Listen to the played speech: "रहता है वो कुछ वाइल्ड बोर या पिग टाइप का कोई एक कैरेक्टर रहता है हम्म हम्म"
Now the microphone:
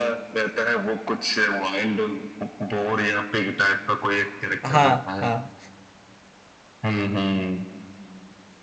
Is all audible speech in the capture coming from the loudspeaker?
No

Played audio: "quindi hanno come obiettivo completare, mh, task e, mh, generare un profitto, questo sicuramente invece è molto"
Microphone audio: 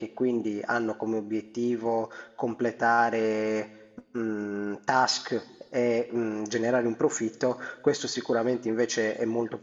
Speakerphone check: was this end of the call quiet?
Yes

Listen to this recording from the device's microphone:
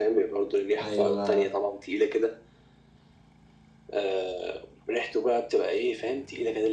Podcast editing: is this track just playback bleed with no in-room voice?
No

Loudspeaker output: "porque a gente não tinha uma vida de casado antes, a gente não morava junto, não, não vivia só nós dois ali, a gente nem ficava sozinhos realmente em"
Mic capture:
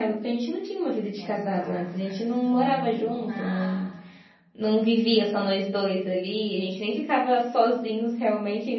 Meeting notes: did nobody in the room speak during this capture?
No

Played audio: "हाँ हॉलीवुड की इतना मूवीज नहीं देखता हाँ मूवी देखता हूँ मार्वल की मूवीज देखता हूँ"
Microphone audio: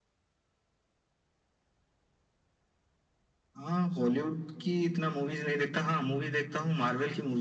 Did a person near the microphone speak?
No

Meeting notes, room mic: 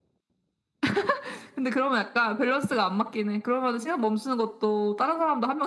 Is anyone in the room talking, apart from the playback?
No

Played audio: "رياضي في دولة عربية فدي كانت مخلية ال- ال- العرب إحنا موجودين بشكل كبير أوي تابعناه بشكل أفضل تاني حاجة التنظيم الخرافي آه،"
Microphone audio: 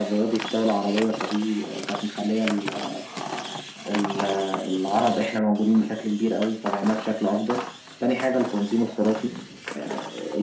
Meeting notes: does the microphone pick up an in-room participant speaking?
No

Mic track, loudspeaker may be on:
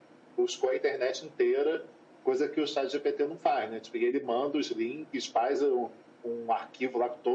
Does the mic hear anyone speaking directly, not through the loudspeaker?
No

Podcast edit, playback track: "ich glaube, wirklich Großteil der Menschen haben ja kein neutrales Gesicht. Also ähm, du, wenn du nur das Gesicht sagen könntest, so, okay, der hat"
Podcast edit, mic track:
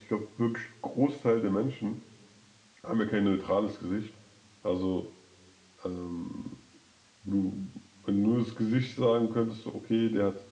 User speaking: No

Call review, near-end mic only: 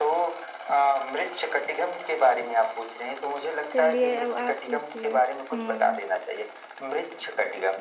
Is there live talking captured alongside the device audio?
Yes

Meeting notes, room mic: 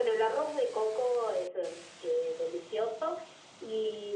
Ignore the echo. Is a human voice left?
No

